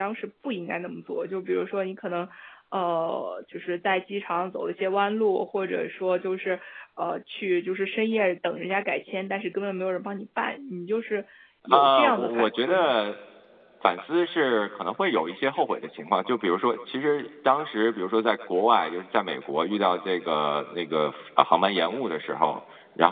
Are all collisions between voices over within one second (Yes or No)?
No